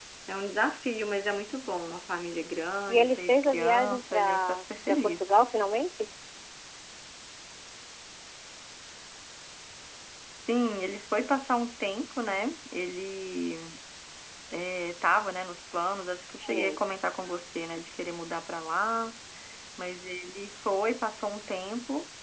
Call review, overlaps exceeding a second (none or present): present